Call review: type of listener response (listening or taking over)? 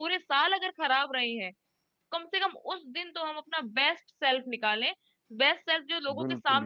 taking over